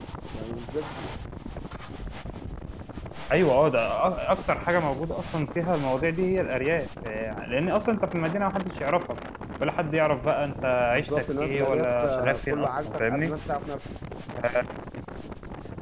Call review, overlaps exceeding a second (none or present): present